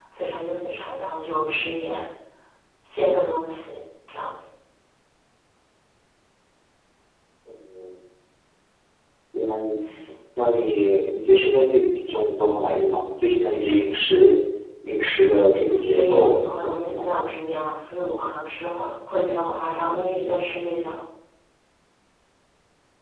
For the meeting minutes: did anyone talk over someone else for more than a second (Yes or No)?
Yes